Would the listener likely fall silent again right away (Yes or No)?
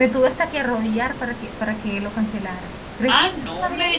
No